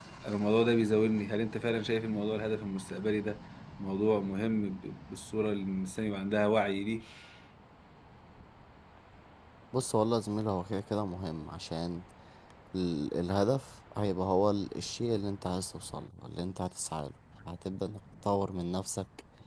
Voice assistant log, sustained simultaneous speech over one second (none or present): none